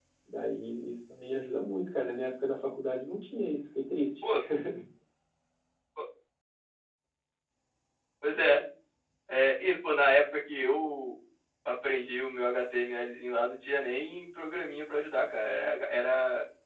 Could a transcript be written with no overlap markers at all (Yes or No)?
Yes